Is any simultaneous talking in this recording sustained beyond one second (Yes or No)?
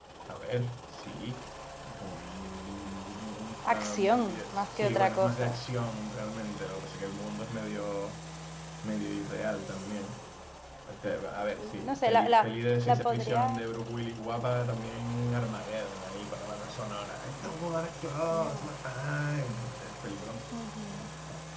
Yes